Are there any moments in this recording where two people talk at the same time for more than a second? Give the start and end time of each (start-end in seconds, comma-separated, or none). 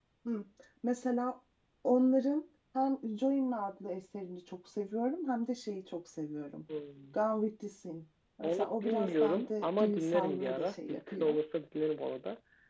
8.4-11.3